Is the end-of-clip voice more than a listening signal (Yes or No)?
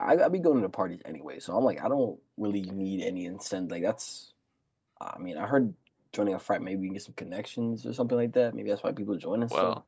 Yes